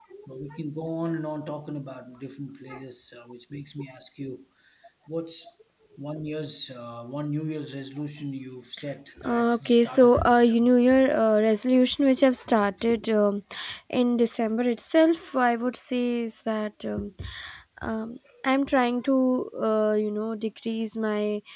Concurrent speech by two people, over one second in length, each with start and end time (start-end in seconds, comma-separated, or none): 9.2-10.7